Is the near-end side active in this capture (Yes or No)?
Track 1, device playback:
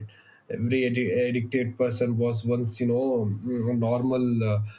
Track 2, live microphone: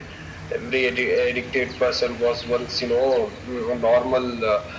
No